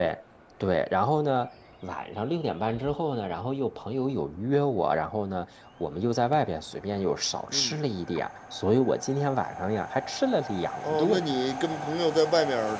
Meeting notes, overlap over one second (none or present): none